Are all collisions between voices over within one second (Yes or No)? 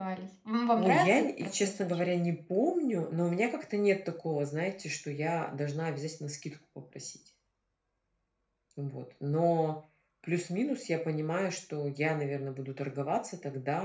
No